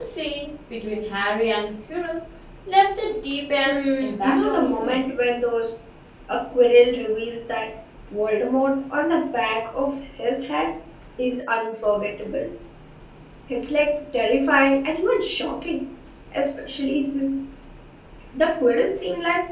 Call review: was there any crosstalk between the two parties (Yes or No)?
Yes